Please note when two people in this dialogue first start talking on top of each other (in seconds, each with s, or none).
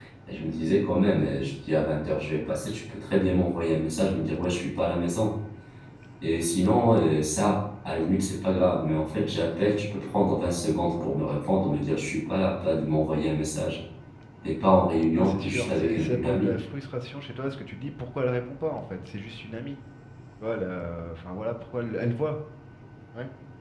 15.1 s